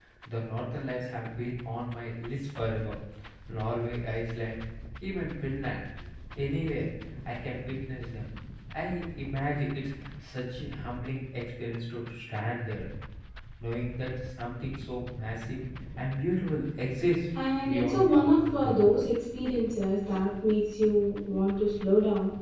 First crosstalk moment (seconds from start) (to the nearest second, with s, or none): 17 s